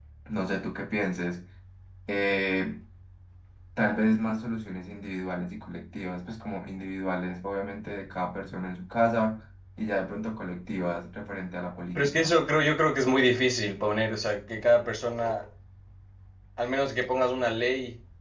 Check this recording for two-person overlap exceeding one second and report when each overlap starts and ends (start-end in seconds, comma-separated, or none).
none